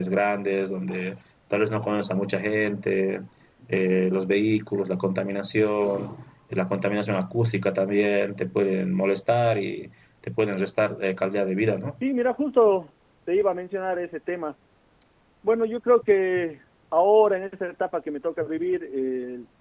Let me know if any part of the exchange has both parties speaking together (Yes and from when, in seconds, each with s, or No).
No